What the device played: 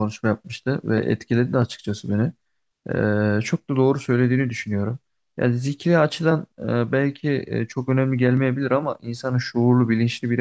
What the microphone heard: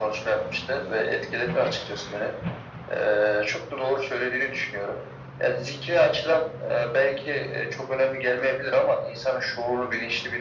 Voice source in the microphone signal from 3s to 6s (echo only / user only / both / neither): echo only